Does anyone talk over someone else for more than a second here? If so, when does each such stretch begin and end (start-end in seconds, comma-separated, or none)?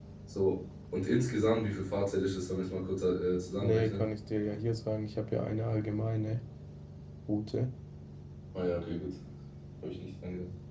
none